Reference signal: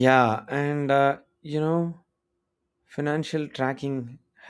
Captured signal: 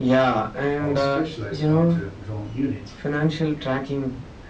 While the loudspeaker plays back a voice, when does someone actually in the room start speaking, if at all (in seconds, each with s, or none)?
0.8 s